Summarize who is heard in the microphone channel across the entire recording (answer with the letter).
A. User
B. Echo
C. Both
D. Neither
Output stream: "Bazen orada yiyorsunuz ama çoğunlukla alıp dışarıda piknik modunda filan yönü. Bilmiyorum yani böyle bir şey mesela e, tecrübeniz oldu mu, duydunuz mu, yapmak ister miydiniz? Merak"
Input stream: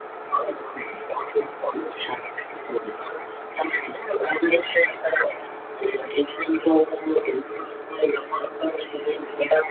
B